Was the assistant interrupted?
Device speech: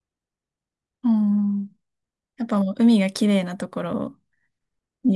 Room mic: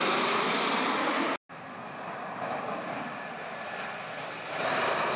No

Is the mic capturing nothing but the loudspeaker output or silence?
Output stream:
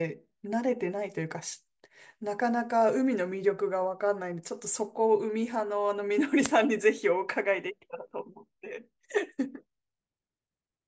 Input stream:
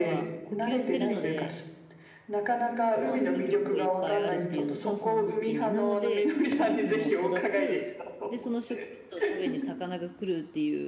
No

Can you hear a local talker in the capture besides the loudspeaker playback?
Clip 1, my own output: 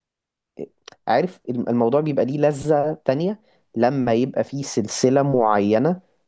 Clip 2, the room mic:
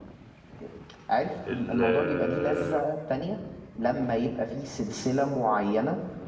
Yes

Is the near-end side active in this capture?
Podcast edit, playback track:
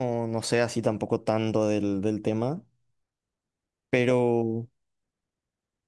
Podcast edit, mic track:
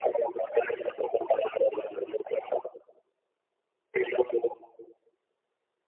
No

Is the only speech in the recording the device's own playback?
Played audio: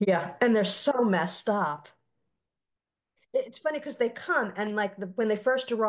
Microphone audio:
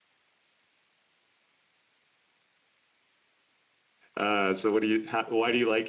No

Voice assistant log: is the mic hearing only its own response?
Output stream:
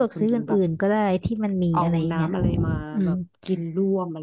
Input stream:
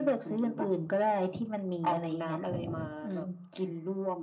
Yes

